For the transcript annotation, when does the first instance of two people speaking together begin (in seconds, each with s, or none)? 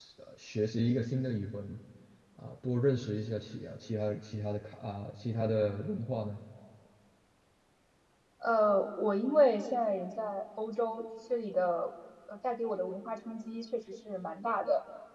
none